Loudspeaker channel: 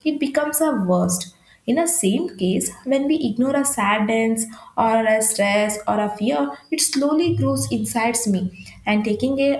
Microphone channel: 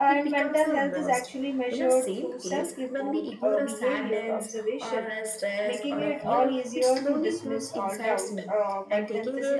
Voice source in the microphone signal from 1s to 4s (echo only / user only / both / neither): both